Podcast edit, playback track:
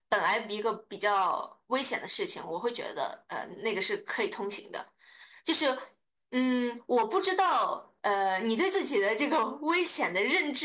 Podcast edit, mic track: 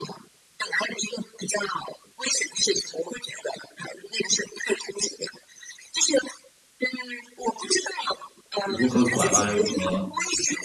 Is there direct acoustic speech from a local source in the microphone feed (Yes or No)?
Yes